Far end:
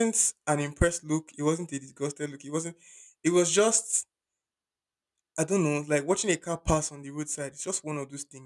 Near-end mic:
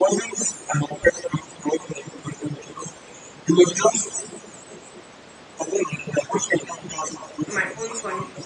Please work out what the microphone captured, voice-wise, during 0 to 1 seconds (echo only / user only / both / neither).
echo only